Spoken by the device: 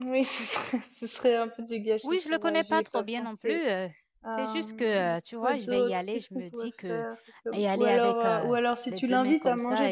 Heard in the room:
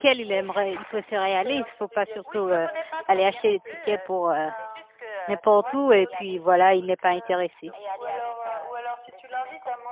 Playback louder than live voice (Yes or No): No